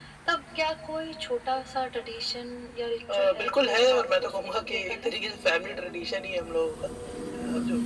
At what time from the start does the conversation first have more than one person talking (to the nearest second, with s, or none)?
3 s